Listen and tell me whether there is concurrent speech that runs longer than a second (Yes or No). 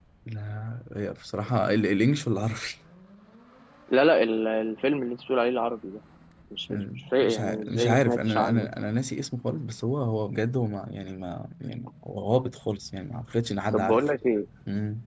Yes